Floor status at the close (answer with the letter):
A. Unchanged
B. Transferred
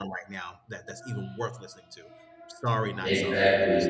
B